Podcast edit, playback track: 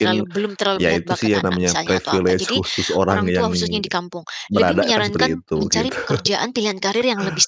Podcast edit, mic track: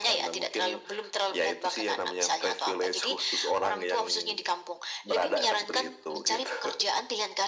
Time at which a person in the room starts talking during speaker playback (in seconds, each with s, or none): none